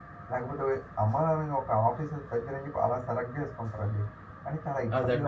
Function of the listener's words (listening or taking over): taking over